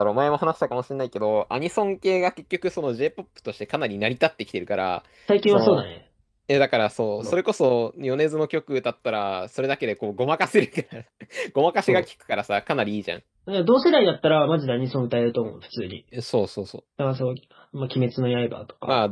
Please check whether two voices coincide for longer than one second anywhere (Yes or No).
No